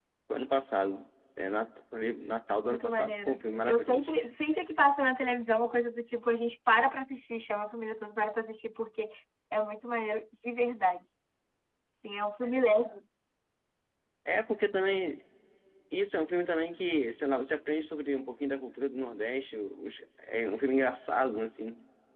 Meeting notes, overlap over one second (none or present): present